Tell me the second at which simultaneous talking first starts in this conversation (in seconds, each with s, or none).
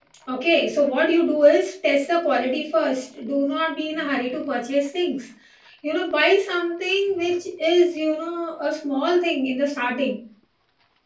none